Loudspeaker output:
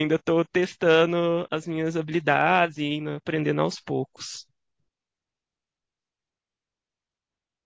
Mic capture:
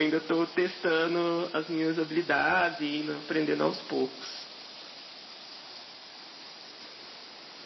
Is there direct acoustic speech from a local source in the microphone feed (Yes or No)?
No